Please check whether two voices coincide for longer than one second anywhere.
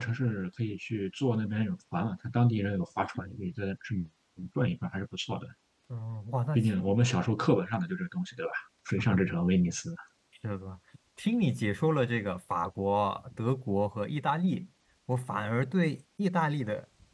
No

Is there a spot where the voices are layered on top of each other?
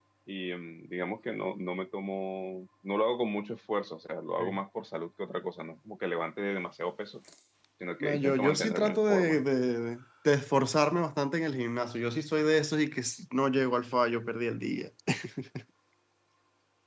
Yes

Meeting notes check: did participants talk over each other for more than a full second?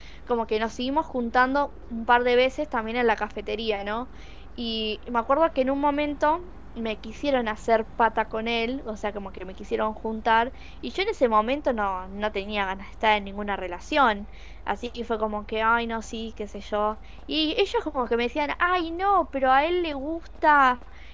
No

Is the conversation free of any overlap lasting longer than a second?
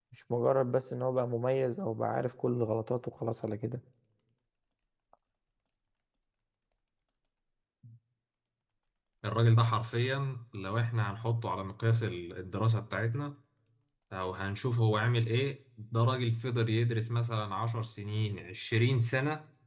Yes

